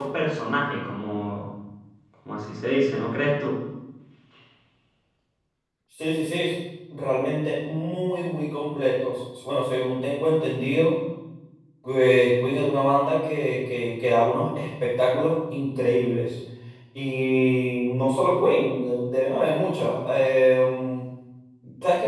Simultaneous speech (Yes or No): No